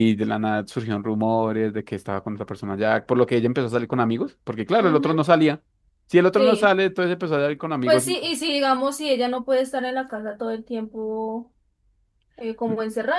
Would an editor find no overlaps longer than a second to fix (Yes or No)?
Yes